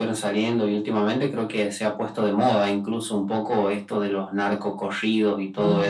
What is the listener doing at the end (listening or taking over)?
listening